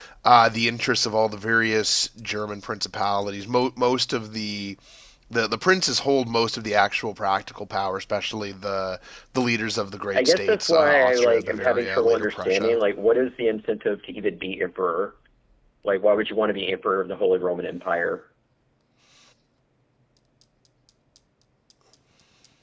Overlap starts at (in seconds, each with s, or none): 10.1 s